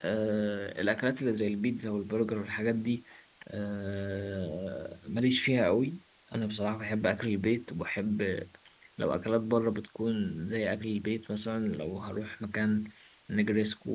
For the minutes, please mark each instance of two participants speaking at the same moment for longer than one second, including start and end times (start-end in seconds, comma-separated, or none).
none